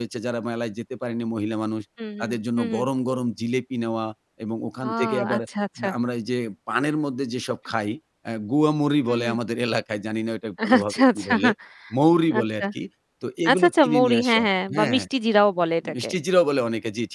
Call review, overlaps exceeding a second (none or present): present